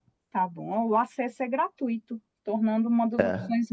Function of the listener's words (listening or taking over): listening